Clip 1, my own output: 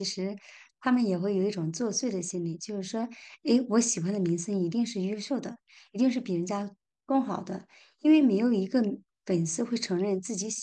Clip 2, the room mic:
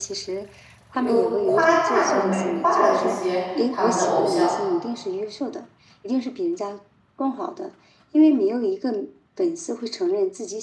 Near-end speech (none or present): present